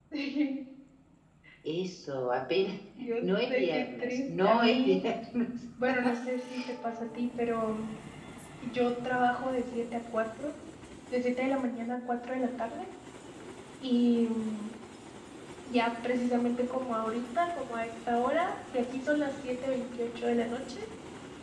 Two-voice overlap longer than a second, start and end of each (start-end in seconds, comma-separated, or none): 3.2-5.0